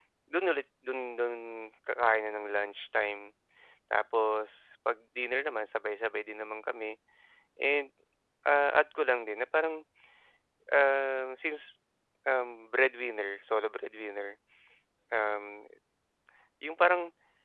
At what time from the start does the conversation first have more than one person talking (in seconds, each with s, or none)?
none